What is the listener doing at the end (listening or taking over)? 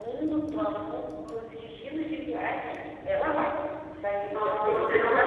taking over